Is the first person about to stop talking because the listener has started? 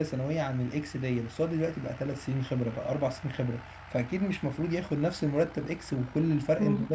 Yes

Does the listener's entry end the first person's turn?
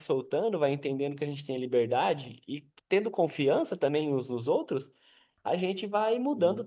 No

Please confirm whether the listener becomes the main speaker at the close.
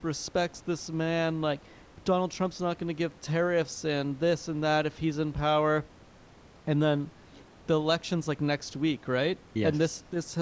No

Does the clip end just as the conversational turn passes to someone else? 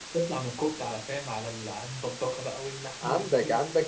Yes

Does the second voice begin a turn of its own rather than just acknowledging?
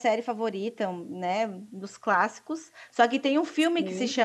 No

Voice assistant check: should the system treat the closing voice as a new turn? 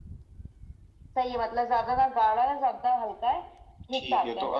Yes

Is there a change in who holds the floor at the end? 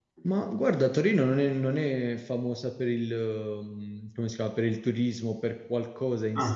No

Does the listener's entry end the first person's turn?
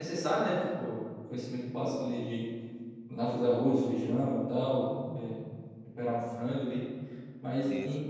No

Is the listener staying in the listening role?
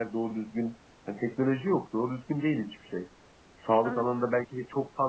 Yes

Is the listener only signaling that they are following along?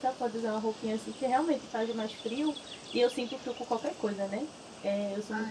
No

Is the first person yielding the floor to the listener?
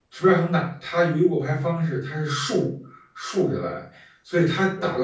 No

